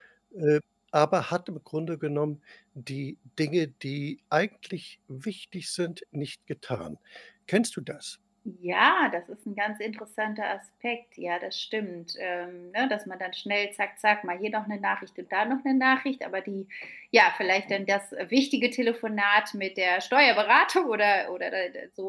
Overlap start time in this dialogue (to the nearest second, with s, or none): none